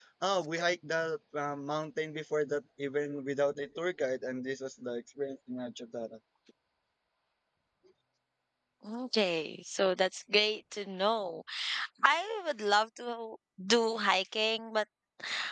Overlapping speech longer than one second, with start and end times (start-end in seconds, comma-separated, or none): none